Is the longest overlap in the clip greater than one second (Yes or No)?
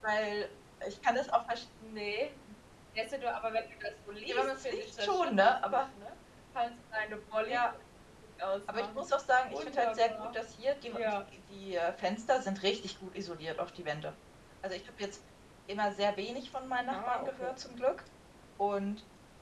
Yes